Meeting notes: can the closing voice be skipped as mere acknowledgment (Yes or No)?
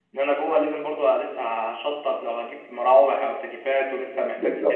Yes